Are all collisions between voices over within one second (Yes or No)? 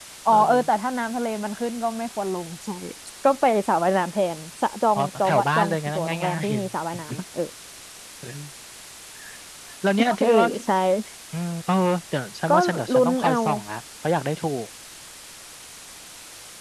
No